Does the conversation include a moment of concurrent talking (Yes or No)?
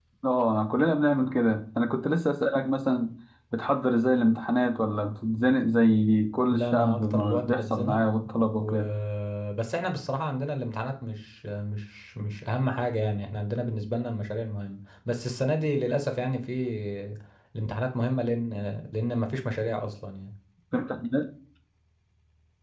Yes